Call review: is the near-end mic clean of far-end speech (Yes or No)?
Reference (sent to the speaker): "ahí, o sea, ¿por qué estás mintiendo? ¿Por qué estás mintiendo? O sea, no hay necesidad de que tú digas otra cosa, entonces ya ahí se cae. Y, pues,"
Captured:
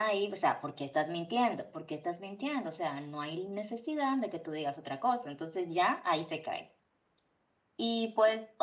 No